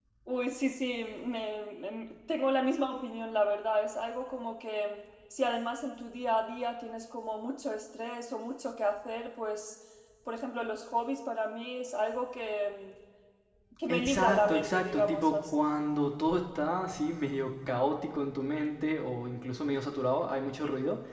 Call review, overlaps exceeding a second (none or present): present